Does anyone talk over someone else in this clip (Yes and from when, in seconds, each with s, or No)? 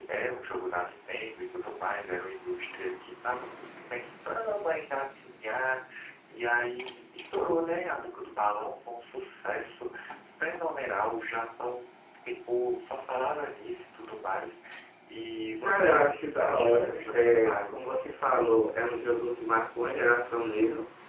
Yes, from 15.6 s